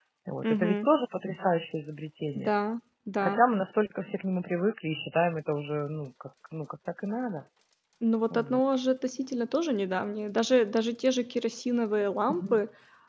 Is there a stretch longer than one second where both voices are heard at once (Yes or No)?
No